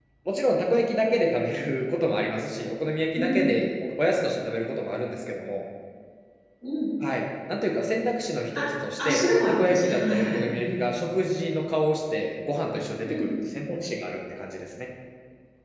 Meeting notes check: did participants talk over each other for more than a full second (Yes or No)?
Yes